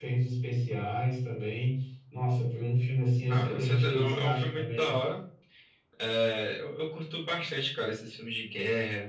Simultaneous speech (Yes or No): Yes